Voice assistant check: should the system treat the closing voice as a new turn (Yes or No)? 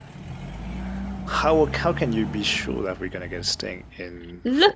Yes